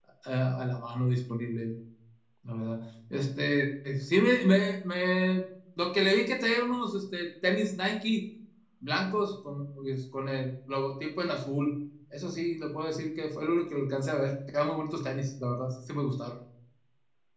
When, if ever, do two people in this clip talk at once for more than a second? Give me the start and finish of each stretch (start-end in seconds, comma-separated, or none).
none